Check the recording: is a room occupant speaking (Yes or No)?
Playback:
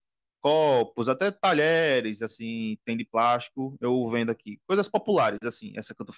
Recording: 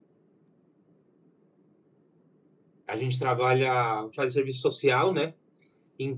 Yes